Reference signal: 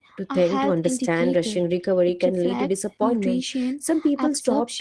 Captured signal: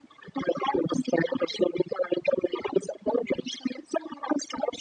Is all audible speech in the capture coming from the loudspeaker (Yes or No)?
Yes